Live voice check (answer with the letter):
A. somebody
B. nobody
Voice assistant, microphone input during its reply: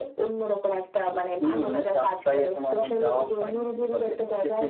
A